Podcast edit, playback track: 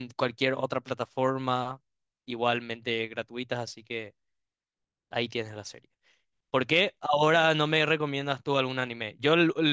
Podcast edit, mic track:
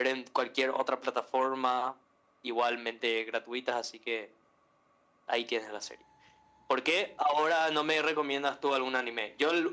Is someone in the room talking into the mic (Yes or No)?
No